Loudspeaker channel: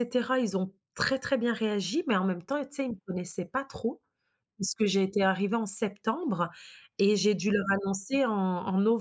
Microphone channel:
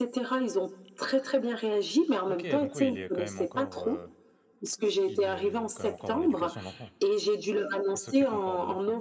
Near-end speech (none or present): present